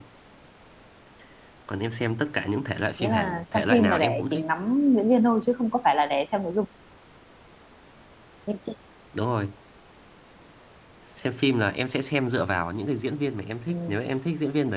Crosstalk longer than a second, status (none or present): present